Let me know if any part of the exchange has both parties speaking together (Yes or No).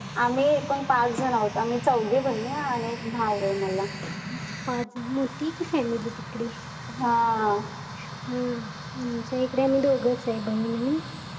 No